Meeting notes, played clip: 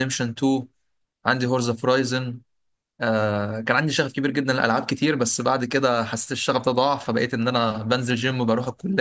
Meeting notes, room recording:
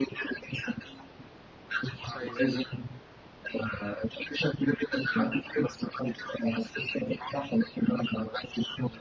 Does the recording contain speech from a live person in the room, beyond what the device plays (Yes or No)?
Yes